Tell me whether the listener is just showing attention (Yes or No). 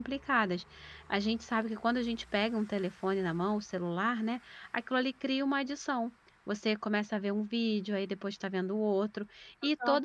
Yes